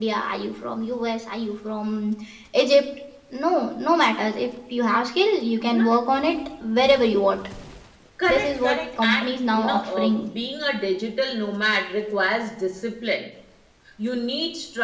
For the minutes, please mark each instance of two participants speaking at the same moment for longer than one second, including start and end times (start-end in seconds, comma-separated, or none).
8.3-10.3